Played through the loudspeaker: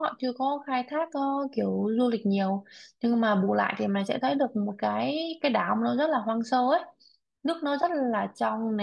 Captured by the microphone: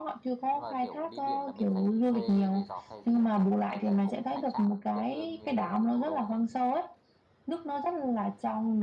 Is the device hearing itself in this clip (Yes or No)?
Yes